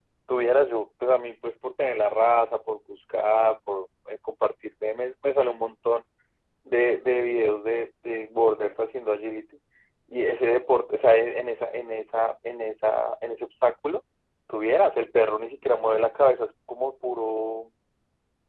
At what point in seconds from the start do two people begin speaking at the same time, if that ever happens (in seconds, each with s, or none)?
none